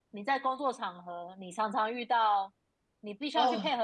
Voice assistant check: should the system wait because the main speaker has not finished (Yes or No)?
Yes